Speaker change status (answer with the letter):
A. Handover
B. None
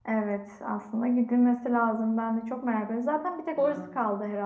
B